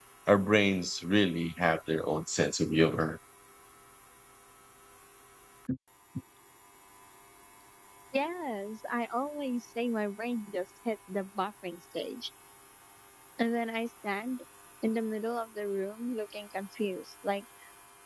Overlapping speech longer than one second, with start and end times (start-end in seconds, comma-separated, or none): none